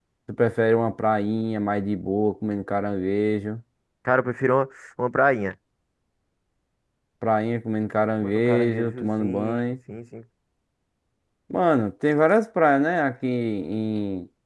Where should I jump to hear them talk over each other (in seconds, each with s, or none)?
8.2 s